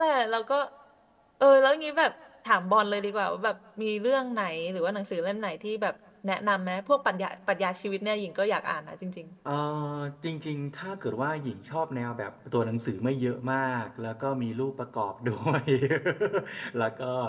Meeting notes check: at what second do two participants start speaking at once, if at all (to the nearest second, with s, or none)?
none